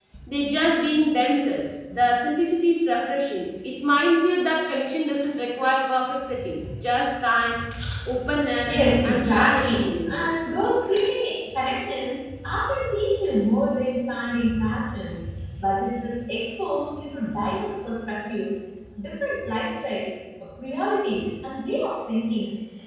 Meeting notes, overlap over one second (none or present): present